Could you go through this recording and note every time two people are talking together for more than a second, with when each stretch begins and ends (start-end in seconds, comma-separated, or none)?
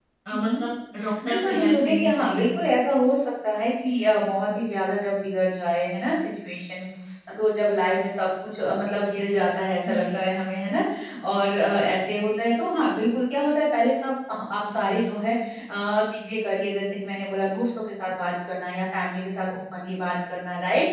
1.2-2.5